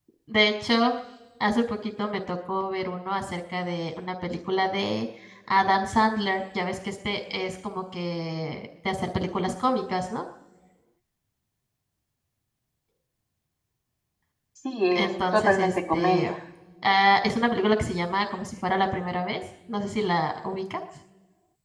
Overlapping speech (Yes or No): Yes